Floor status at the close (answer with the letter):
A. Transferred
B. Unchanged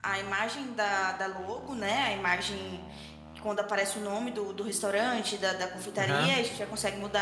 B